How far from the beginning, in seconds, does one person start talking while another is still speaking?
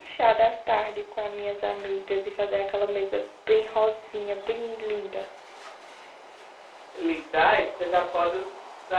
none

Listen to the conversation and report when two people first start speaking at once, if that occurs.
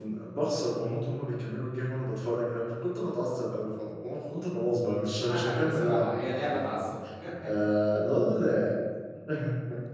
5.3 s

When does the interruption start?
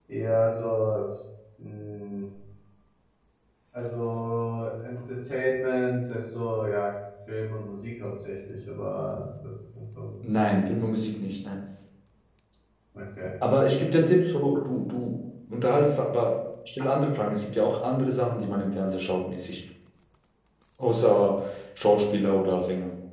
none

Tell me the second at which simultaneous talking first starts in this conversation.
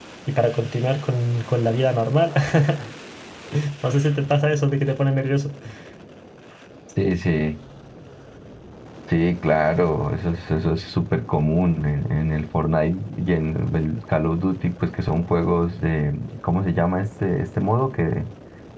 none

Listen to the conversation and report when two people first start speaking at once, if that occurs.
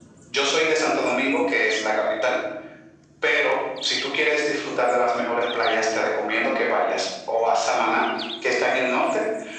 none

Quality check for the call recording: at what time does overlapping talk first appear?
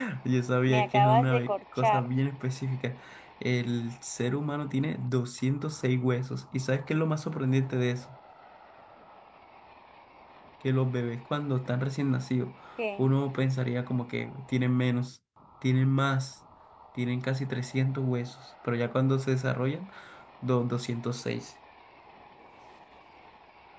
0.7 s

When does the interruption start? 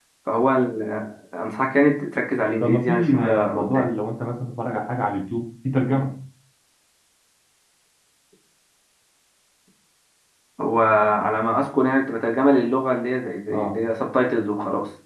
2.6 s

